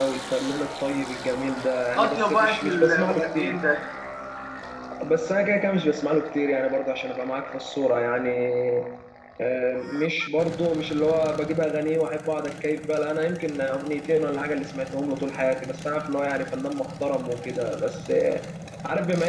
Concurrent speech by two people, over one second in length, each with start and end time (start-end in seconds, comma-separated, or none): 2.0-3.6